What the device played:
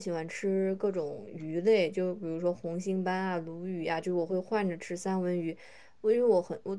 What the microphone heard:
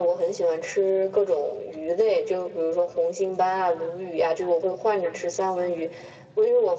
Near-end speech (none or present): none